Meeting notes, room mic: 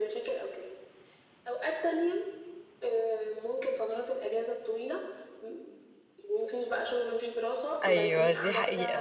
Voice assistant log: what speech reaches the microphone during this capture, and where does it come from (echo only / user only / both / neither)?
both